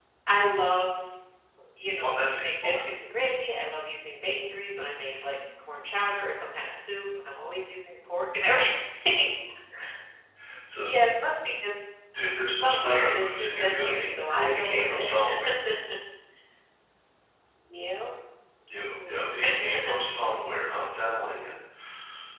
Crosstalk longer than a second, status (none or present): present